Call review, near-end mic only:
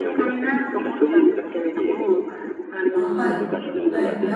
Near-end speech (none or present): present